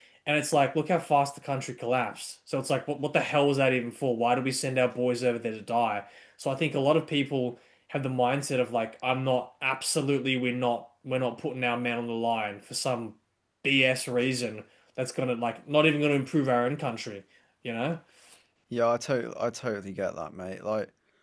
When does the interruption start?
none

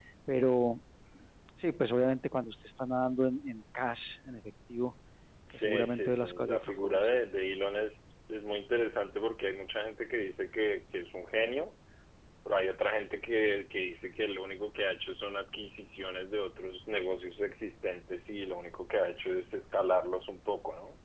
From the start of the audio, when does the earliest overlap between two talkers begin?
5.5 s

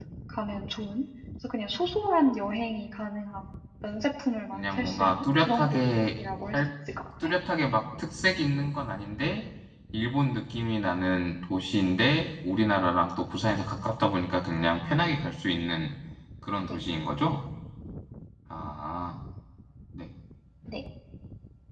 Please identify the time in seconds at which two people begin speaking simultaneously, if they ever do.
4.5 s

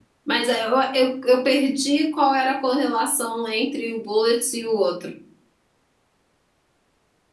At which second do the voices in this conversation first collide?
none

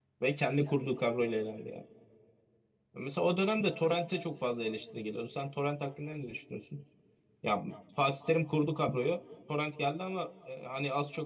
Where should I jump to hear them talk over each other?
none

